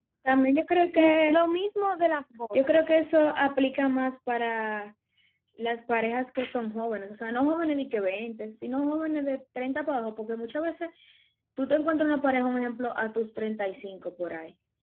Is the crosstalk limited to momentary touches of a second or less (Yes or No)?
Yes